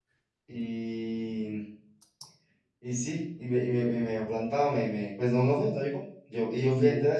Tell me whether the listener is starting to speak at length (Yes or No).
No